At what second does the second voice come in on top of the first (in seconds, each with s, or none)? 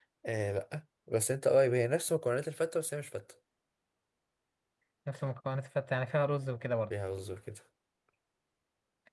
none